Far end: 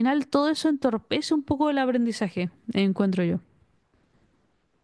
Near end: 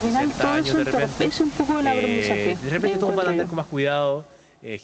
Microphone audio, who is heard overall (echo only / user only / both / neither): both